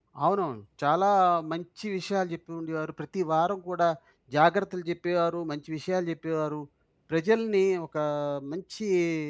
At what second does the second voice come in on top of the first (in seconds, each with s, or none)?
none